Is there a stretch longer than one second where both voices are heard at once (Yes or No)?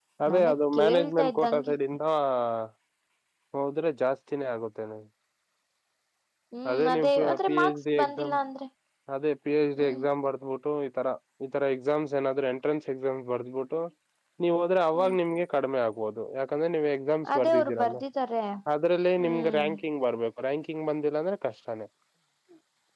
Yes